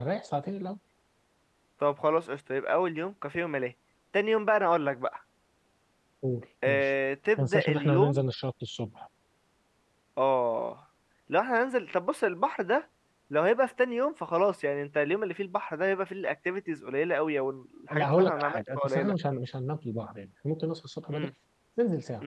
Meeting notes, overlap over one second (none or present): present